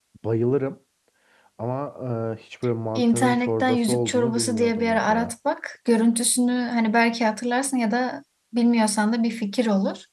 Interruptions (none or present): present